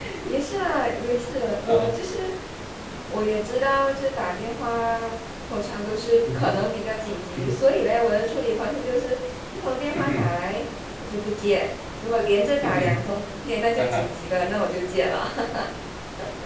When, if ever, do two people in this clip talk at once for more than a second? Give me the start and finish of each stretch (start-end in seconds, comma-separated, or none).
none